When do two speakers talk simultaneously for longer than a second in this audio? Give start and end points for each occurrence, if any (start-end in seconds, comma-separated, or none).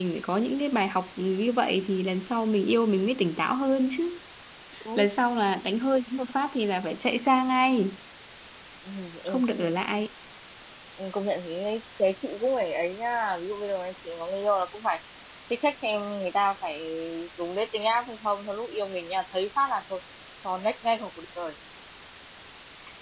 none